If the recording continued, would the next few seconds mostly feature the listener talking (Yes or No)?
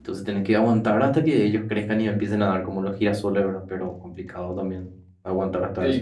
Yes